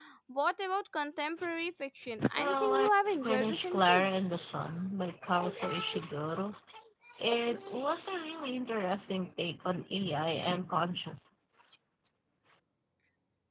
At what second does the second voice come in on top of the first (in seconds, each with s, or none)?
2.3 s